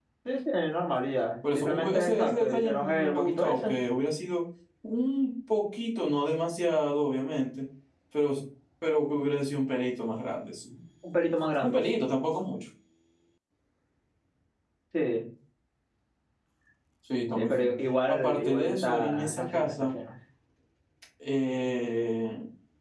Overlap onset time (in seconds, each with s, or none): 1.5 s